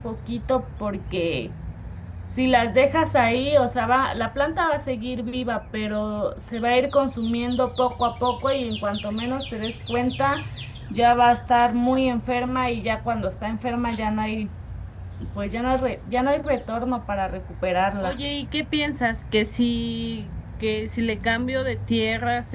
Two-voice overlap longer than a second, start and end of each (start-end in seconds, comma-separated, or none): none